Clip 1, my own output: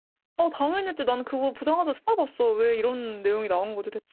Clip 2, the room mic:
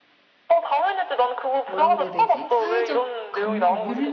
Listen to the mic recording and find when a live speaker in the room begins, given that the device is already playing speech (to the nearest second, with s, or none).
2 s